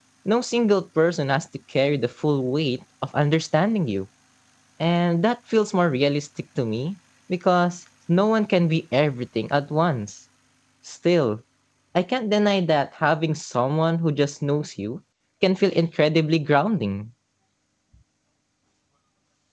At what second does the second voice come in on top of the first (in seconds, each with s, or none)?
none